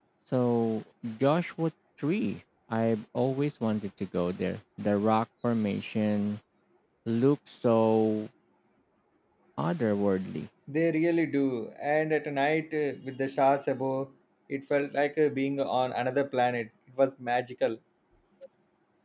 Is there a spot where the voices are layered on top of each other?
No

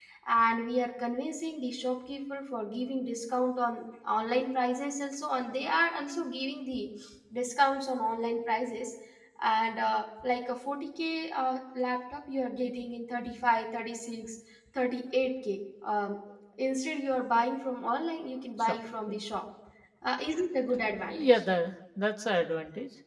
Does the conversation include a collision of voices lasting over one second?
No

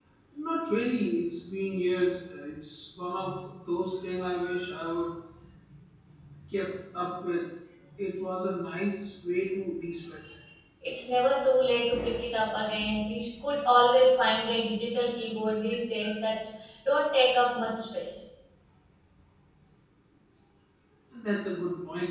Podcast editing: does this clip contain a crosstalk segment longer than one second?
No

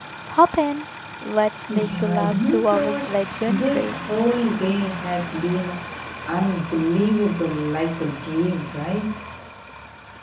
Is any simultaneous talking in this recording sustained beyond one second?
Yes, from 1.7 s

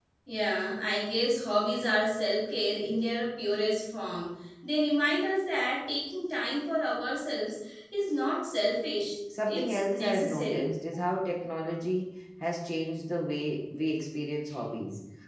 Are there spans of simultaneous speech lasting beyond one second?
Yes, from 9.3 s

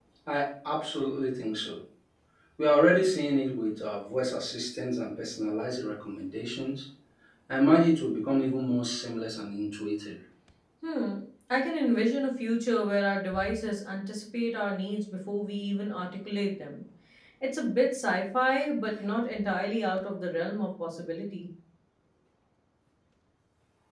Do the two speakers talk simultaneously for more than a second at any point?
No

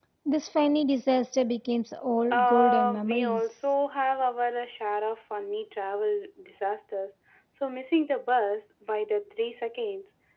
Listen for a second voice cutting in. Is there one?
Yes, from 2.3 s

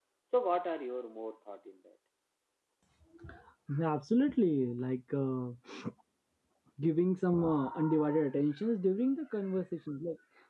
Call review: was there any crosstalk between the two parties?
No

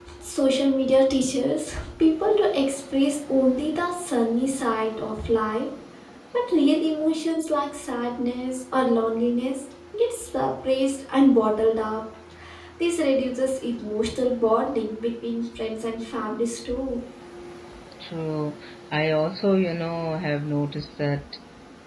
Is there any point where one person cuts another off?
No

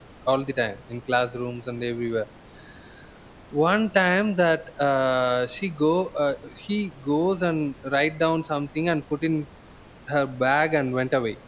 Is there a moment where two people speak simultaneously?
No

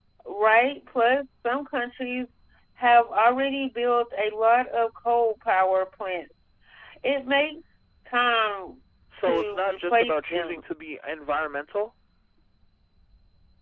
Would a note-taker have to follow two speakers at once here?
Yes, from 9.2 s

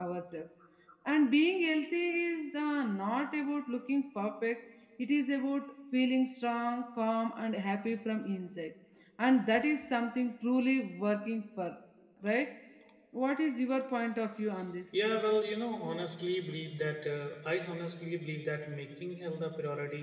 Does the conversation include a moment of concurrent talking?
No

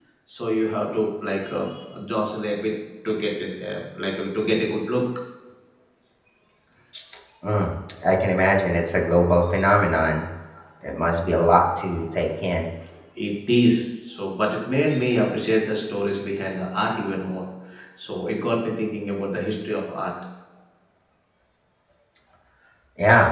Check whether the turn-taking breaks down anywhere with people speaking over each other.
No

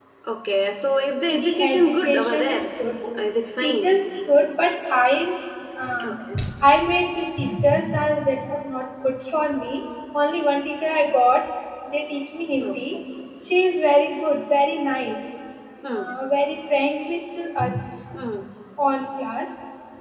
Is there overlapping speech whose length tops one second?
Yes, from 1.3 s

